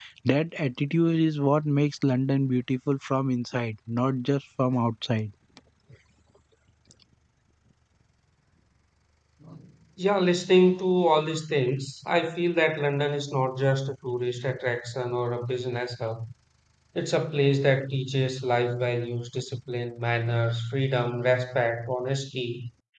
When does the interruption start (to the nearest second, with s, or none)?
none